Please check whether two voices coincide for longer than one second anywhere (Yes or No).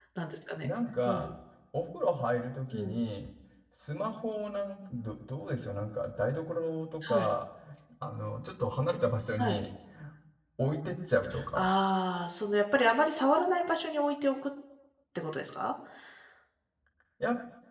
No